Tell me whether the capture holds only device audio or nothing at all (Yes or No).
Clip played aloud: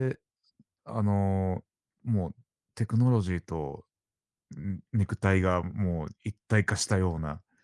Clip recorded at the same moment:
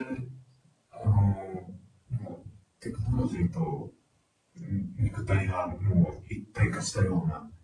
Yes